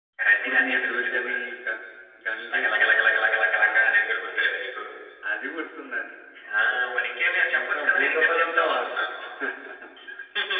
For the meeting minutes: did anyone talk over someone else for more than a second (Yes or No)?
Yes